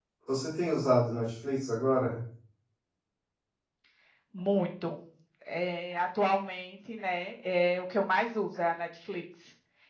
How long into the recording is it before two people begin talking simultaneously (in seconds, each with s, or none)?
none